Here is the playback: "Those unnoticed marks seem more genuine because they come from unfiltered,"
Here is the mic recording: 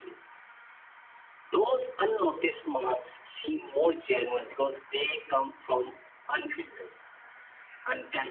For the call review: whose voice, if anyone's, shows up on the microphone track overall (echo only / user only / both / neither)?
echo only